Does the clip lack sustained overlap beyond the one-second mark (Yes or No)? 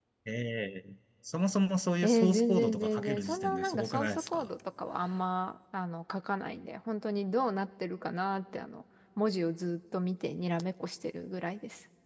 No